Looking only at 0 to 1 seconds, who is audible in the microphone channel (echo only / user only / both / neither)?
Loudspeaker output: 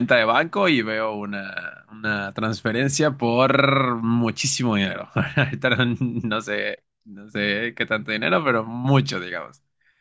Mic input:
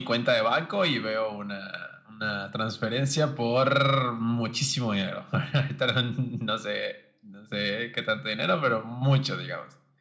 echo only